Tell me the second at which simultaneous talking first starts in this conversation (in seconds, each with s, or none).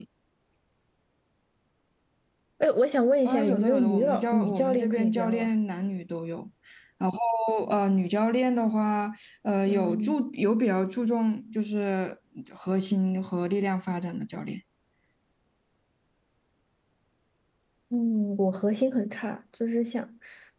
3.2 s